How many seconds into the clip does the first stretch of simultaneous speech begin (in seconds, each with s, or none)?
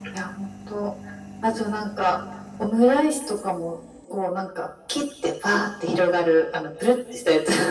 none